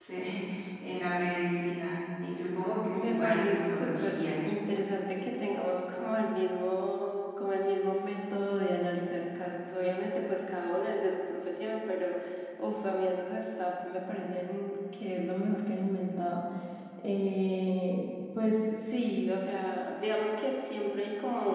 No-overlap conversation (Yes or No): No